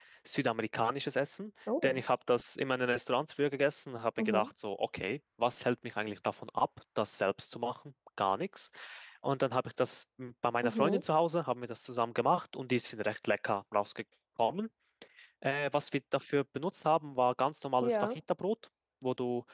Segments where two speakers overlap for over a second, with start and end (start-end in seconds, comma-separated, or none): none